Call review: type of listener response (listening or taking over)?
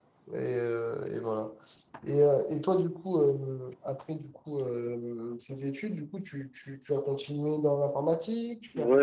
taking over